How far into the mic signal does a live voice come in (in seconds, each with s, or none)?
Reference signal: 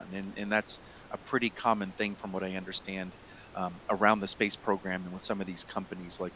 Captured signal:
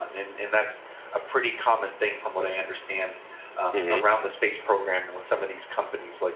3.7 s